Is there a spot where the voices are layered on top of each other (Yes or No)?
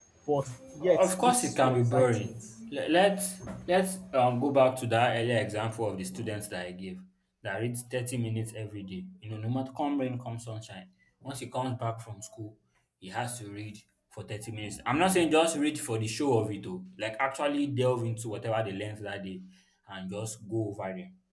Yes